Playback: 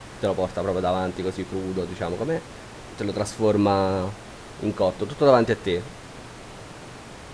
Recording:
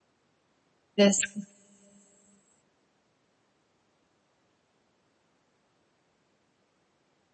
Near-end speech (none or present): present